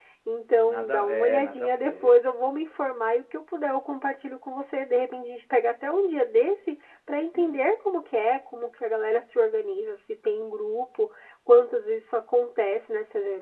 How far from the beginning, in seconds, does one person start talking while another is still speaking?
0.7 s

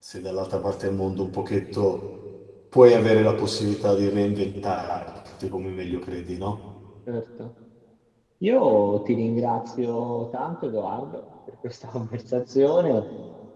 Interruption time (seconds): none

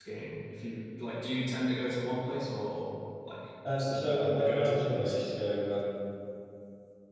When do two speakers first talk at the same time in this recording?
3.6 s

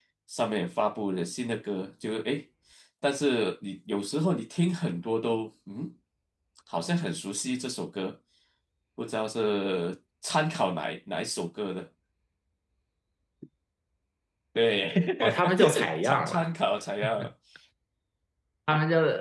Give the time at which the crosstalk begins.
15.2 s

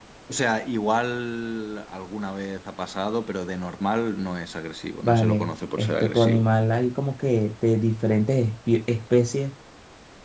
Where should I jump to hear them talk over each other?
5.0 s

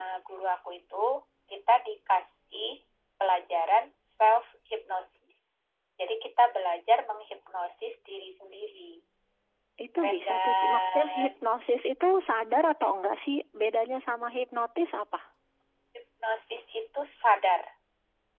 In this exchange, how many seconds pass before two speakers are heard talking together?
10.0 s

